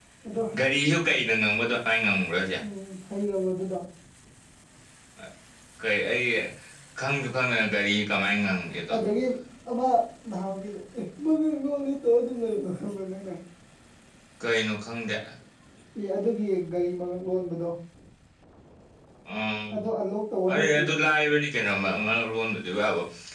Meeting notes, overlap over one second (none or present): none